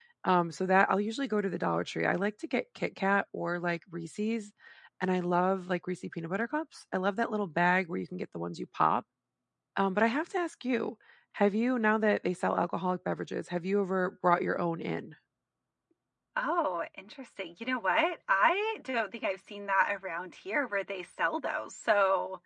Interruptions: none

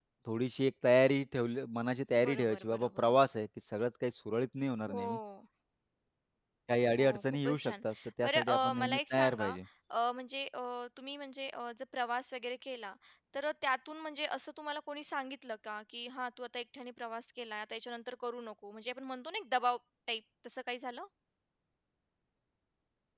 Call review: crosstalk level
present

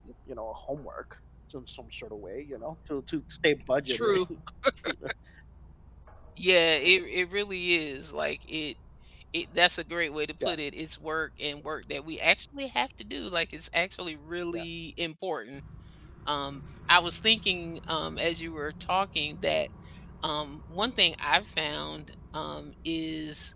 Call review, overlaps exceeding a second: none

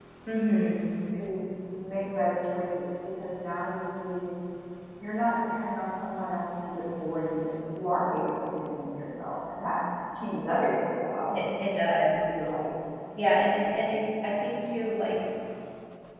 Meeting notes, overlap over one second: none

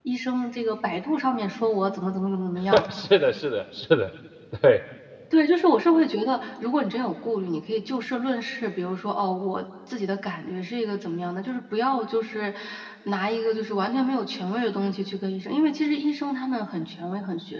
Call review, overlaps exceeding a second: none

